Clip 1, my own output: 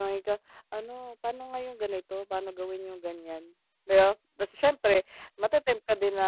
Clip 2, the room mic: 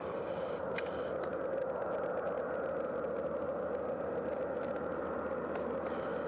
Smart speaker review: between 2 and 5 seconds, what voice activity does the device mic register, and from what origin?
neither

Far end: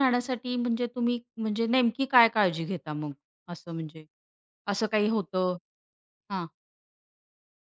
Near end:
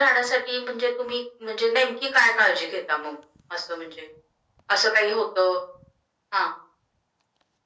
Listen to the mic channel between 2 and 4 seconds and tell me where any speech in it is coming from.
echo only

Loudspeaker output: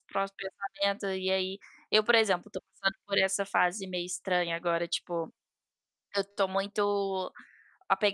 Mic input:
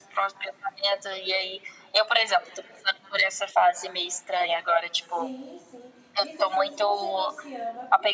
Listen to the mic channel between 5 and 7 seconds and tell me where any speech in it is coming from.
both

